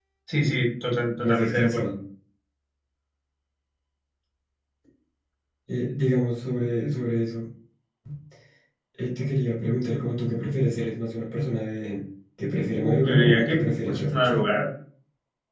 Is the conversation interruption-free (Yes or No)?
No